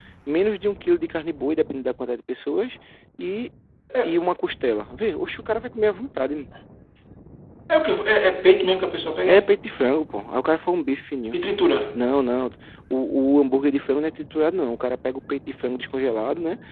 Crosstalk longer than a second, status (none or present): none